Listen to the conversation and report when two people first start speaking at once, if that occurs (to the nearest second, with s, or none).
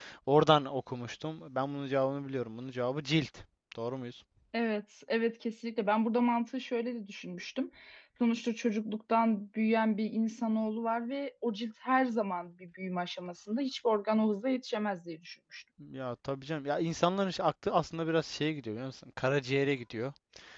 none